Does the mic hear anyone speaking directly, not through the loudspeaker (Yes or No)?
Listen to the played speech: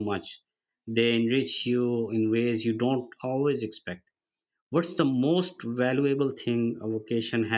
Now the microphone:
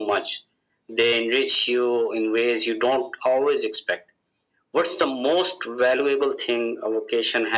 No